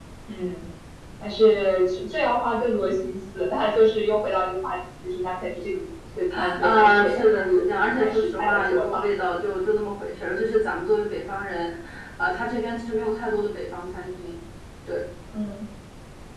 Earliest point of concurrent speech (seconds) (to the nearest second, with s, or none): 7 s